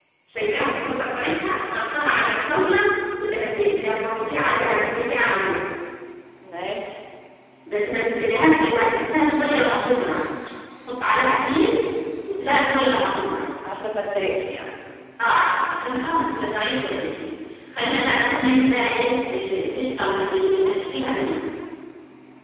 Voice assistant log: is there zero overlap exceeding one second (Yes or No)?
Yes